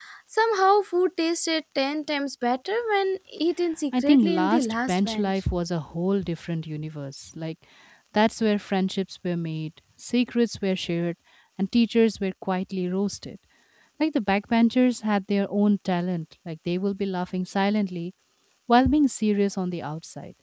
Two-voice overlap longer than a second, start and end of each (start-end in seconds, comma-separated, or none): 4.0-5.3